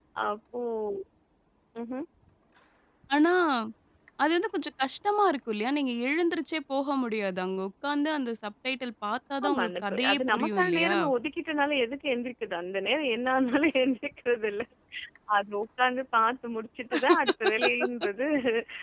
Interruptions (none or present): present